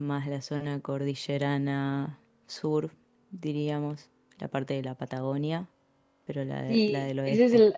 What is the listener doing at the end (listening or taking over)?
taking over